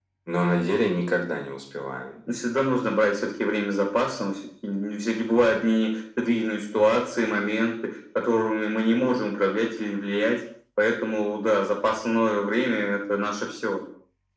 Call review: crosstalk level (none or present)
none